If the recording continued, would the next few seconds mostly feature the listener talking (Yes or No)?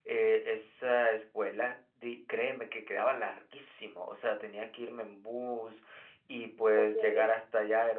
No